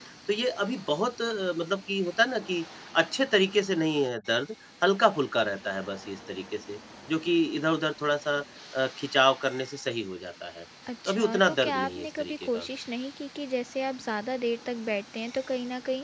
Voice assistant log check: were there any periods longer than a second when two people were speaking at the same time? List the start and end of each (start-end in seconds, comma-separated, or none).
11.1-12.7